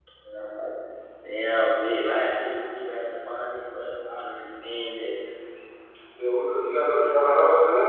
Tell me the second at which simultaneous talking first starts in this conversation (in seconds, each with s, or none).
none